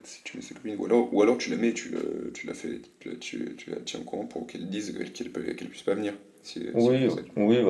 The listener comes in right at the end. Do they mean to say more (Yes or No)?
Yes